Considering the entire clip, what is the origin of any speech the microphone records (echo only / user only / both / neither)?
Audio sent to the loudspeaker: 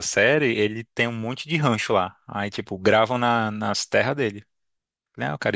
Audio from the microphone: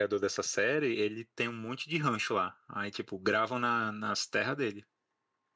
echo only